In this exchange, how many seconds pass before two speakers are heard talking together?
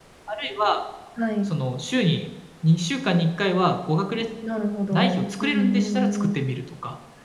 4.9 s

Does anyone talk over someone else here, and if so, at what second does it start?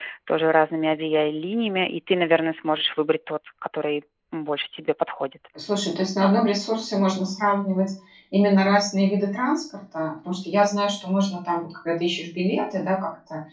none

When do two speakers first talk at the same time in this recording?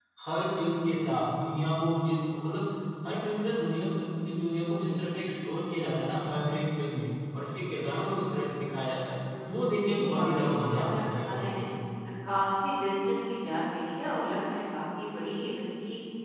9.3 s

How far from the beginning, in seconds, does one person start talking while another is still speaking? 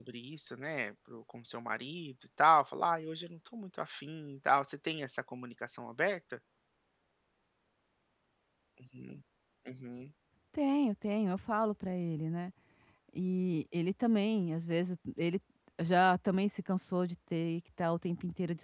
none

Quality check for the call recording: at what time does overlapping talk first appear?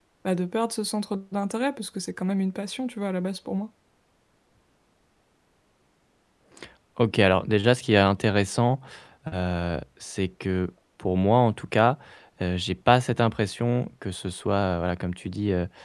none

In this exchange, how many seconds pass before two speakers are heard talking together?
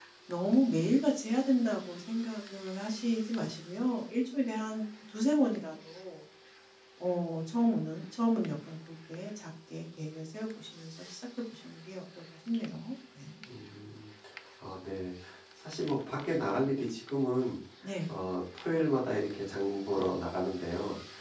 none

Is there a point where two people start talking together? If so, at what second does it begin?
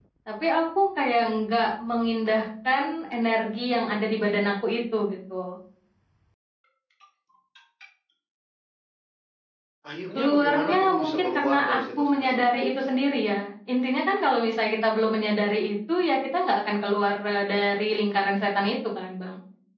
10.2 s

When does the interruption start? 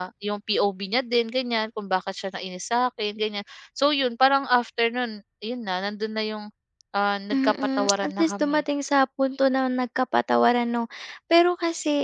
7.3 s

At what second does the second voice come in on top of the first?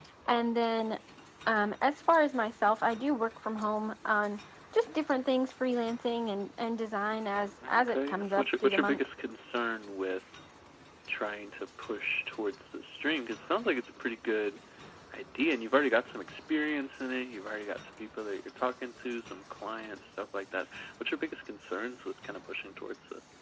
7.8 s

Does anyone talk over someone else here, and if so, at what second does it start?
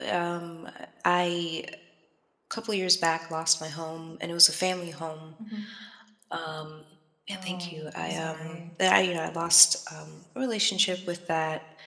7.3 s

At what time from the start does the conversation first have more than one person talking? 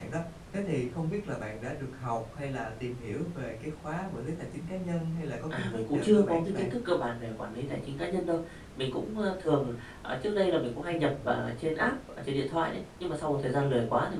5.5 s

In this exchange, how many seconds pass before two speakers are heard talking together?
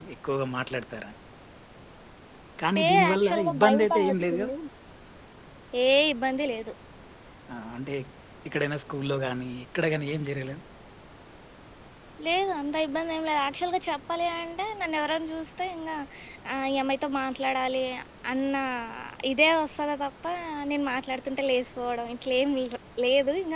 2.8 s

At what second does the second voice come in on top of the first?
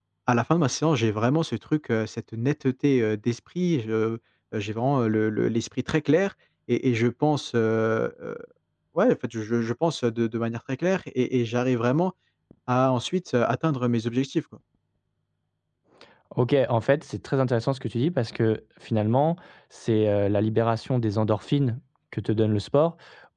none

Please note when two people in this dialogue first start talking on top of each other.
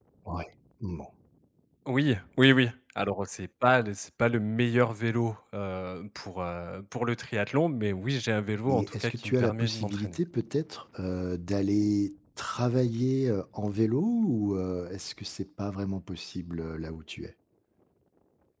8.7 s

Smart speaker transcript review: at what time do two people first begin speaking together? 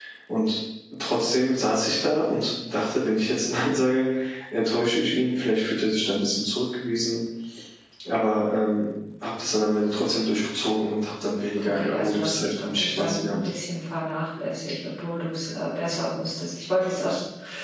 11.5 s

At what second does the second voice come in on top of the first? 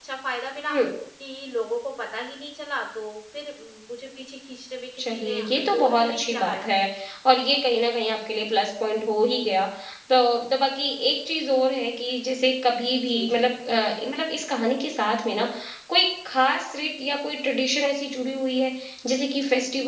5.1 s

